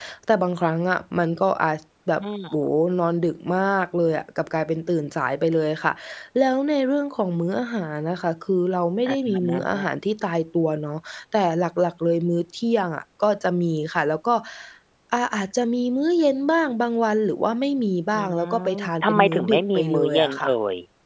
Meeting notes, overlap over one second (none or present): present